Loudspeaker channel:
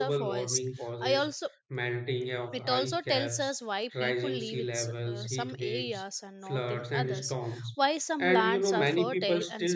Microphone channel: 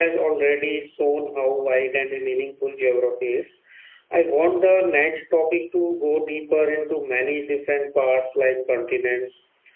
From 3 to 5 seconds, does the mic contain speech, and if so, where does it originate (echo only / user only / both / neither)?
user only